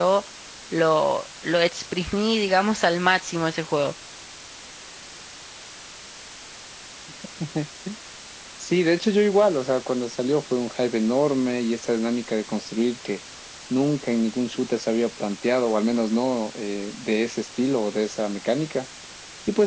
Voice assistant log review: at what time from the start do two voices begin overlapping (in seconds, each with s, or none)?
none